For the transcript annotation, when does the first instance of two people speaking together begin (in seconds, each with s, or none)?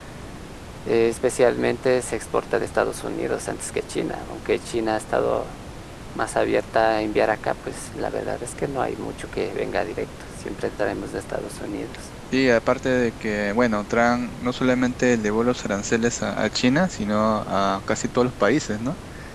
none